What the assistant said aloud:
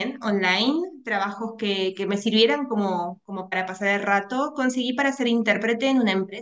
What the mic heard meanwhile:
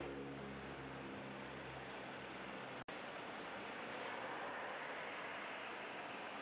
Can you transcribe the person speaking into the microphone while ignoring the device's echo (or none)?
none